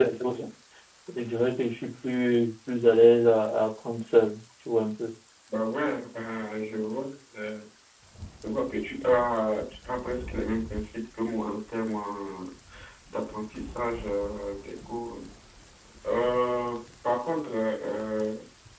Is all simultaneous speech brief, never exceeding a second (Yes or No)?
Yes